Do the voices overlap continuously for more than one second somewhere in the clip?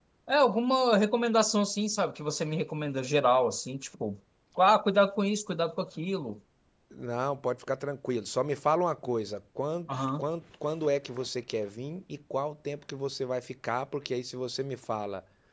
No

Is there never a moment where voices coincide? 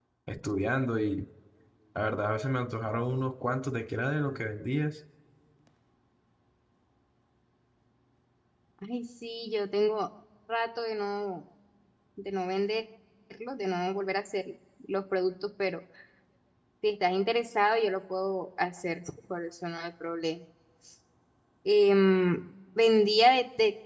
Yes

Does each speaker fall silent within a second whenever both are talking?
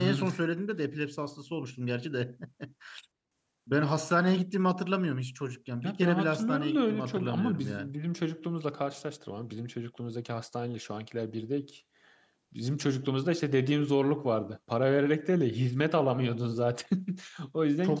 No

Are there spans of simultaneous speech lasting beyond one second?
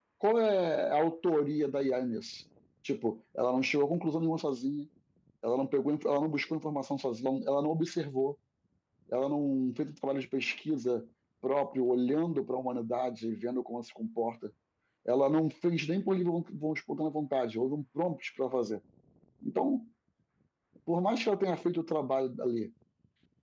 No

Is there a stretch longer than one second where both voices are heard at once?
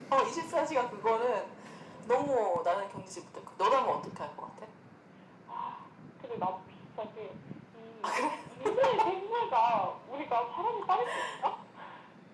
No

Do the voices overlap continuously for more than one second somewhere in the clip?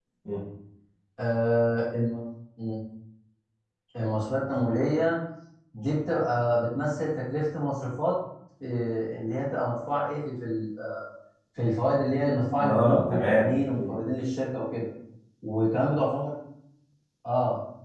Yes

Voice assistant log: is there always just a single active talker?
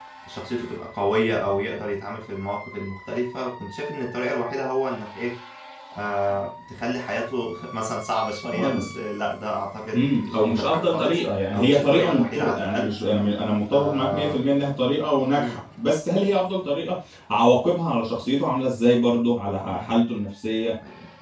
No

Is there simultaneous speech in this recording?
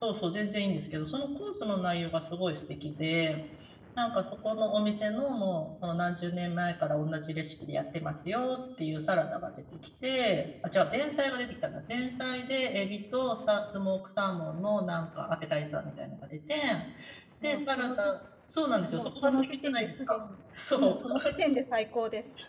Yes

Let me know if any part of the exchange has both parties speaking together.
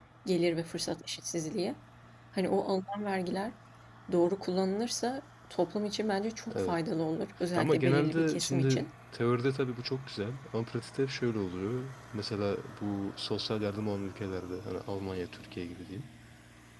Yes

